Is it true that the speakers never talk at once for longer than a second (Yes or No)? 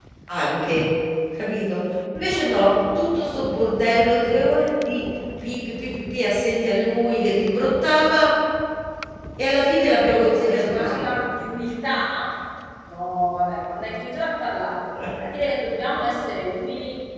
No